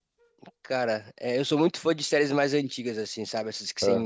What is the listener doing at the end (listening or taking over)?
listening